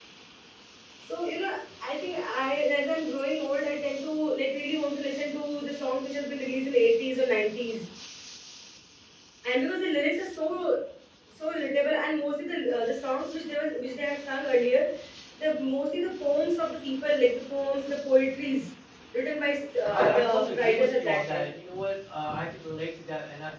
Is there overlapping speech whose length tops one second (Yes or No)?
Yes